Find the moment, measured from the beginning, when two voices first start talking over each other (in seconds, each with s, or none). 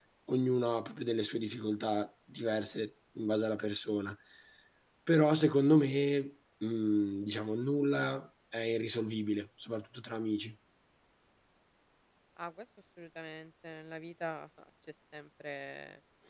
none